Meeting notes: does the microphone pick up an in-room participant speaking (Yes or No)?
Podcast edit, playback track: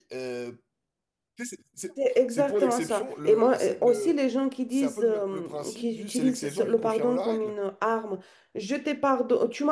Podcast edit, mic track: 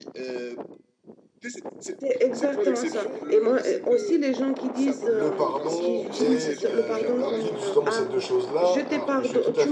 Yes